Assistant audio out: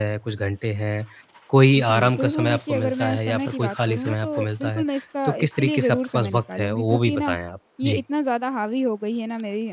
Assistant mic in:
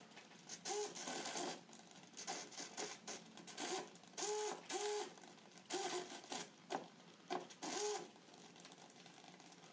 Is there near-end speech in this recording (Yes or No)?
No